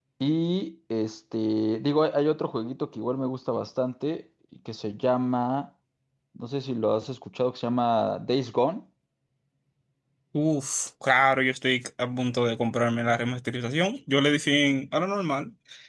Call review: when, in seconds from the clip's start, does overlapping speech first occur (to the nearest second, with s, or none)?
none